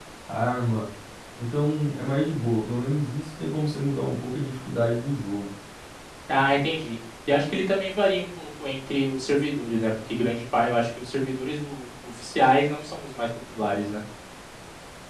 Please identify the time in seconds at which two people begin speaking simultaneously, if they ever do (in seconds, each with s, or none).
none